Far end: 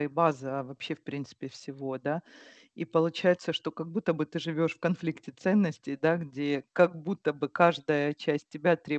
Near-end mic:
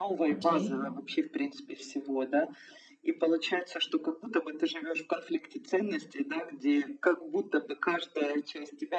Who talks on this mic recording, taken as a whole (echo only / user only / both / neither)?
both